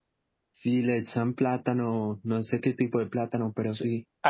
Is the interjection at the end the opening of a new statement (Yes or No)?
Yes